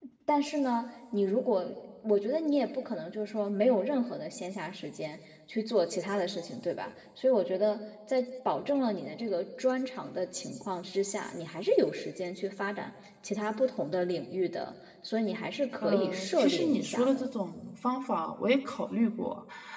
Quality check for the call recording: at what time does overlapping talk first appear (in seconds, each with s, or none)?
15.8 s